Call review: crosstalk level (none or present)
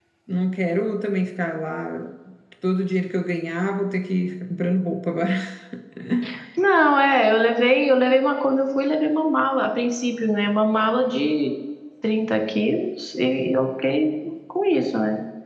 none